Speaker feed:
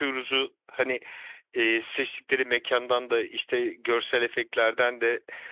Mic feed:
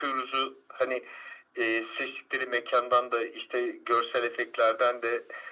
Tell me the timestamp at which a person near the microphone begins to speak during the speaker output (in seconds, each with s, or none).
none